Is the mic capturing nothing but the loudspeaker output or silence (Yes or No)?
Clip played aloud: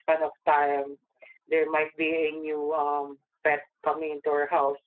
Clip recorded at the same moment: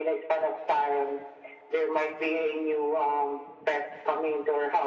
Yes